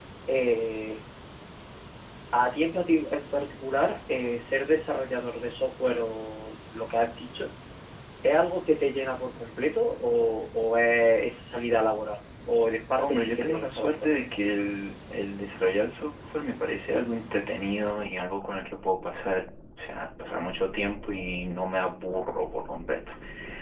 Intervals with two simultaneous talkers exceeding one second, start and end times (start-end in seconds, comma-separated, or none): 13.0-14.2